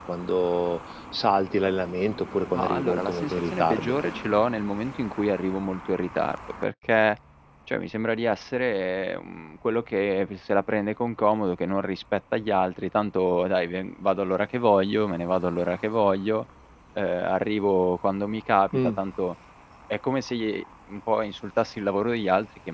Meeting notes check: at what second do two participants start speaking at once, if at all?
2.5 s

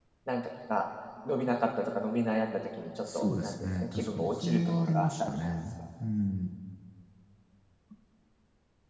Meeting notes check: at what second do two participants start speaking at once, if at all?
3.0 s

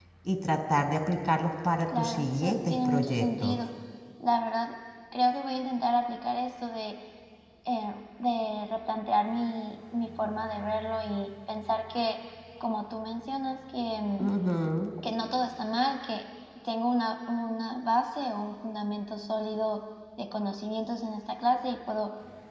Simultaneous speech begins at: 1.9 s

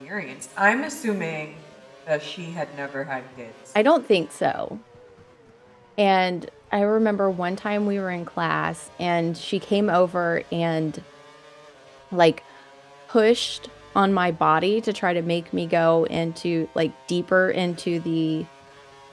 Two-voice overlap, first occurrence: none

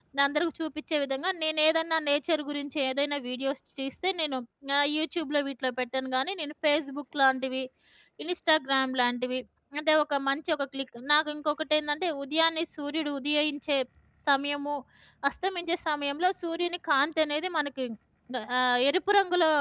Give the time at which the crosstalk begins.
none

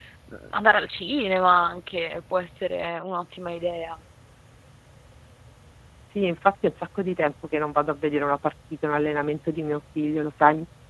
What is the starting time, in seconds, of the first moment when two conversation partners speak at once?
none

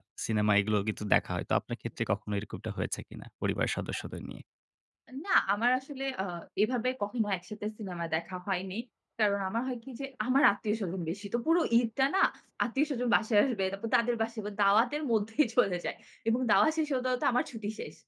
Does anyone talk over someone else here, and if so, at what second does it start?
none

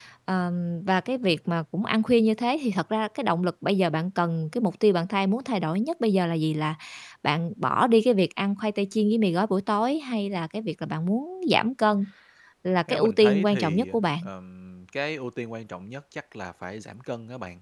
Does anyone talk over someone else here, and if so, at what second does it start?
12.9 s

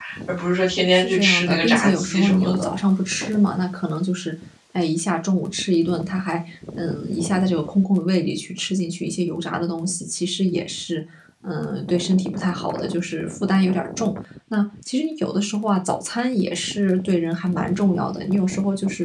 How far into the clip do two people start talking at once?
0.9 s

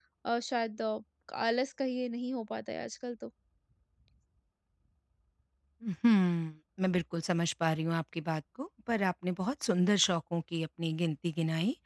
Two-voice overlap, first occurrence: none

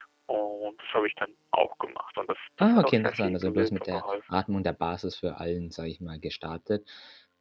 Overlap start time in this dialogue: 2.6 s

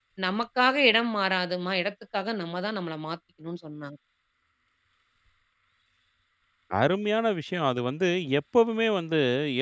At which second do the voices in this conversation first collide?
none

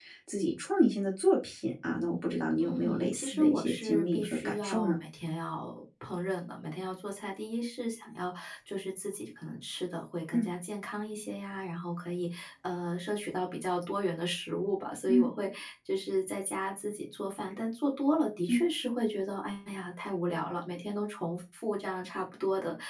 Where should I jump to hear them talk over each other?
2.6 s

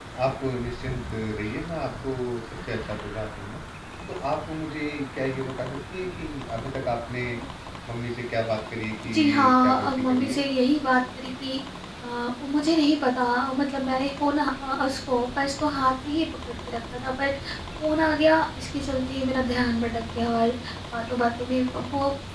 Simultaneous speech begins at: 9.1 s

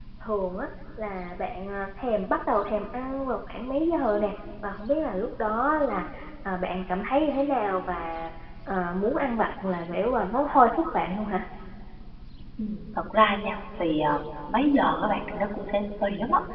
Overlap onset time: none

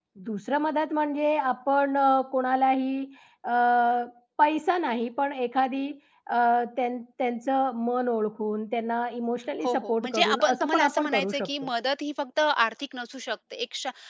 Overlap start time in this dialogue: 9.6 s

